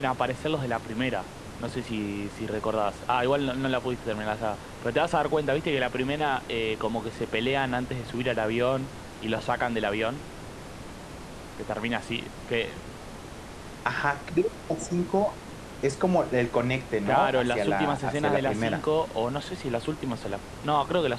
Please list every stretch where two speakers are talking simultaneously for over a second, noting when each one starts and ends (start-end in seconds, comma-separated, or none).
17.1-18.8